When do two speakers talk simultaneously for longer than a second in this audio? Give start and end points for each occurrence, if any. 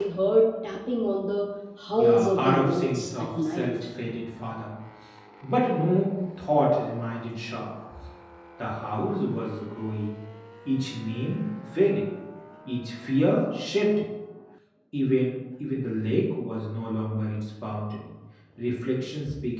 1.9-3.7

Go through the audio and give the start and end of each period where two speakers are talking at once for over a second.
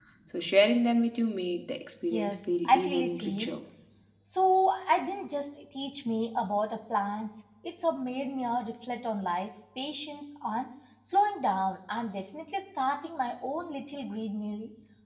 2.1-3.5

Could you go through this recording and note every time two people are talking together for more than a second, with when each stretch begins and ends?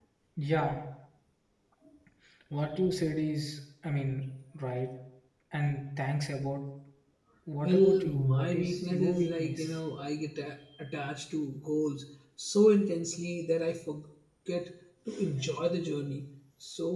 7.6-9.8

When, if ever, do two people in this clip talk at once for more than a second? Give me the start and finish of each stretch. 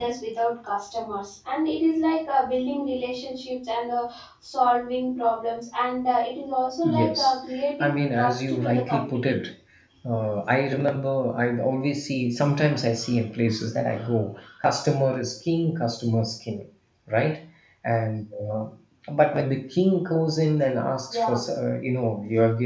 7.8-9.3

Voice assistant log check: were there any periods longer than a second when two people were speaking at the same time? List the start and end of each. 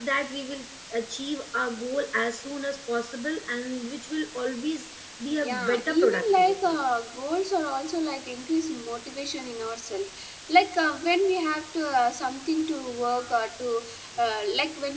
5.4-6.8

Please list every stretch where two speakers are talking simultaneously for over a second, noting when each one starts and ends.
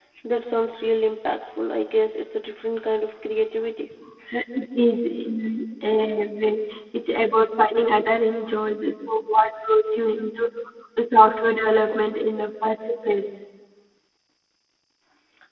none

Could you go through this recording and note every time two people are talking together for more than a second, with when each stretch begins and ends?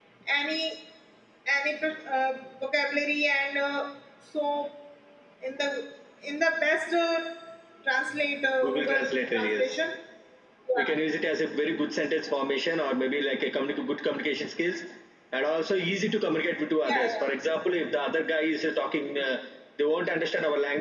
8.6-9.8

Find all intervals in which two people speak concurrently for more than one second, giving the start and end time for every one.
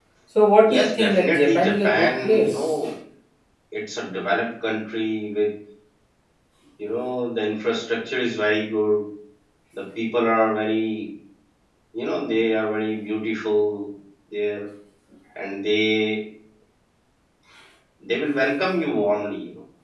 0.6-2.8

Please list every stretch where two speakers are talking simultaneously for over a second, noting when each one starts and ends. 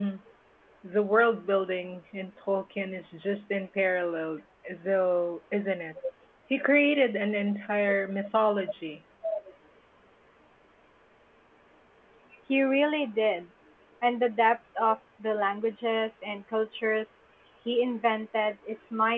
none

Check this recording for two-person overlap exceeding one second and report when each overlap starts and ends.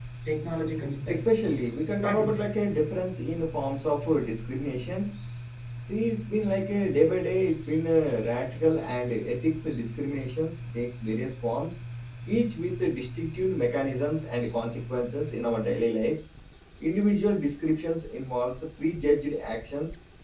1.1-2.4

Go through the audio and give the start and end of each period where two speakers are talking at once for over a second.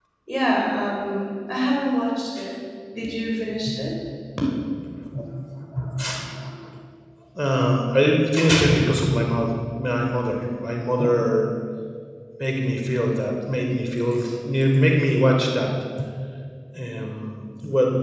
none

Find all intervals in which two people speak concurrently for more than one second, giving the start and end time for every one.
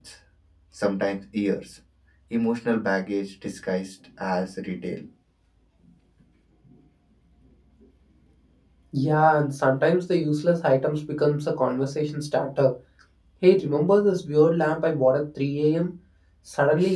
none

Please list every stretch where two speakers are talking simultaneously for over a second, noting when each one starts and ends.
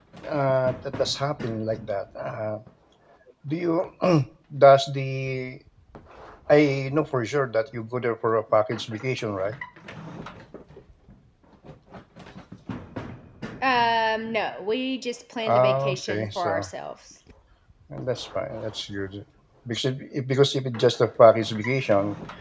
15.4-16.7

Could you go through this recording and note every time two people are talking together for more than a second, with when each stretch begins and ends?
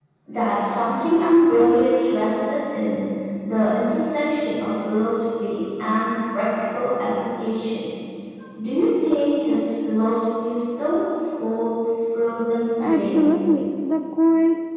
none

